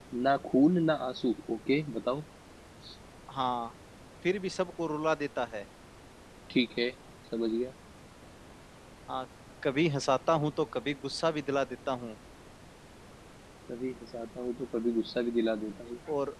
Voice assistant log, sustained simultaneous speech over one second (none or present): none